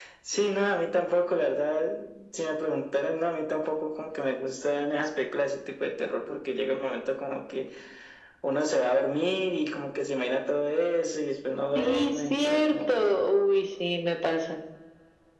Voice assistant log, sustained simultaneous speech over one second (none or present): present